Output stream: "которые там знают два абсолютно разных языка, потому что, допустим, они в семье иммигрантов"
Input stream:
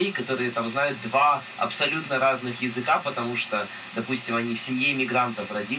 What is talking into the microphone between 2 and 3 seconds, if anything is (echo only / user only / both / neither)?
echo only